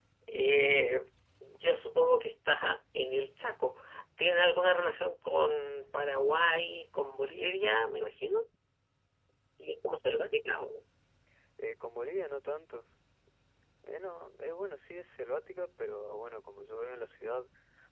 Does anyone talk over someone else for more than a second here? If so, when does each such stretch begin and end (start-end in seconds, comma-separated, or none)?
none